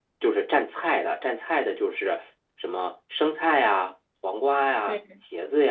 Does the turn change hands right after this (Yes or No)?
No